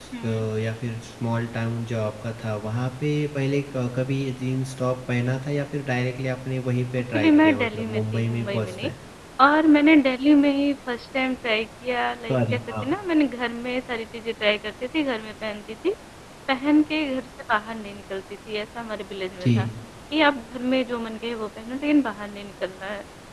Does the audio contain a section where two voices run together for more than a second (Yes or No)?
Yes